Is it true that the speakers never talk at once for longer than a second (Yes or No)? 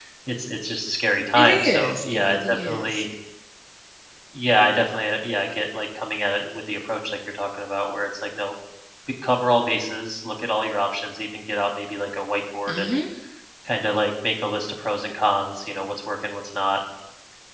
No